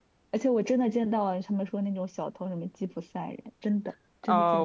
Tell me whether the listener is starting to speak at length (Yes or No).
Yes